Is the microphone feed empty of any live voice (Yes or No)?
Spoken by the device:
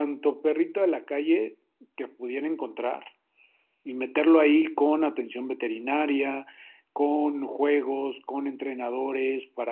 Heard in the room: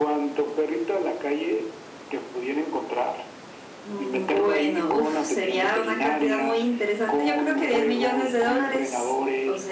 No